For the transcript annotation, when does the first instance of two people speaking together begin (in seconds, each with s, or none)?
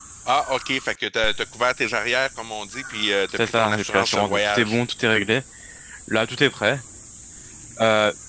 3.4 s